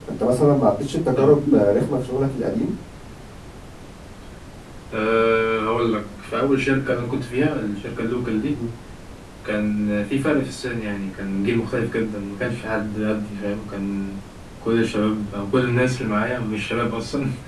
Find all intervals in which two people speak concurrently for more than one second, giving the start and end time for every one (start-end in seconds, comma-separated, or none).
none